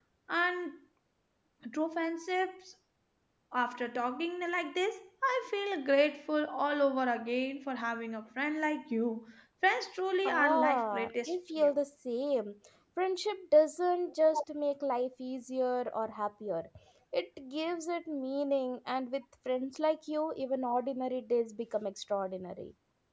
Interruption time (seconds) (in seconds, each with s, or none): 10.2 s